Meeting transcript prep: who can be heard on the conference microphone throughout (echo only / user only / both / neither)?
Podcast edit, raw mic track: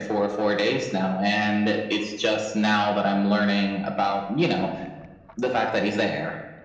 echo only